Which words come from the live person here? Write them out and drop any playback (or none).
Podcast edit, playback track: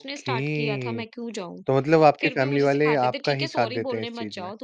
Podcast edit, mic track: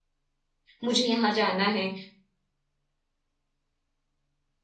मुझे यहाँ जाना है।